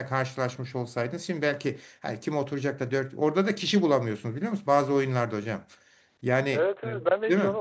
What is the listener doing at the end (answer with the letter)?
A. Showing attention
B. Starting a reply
B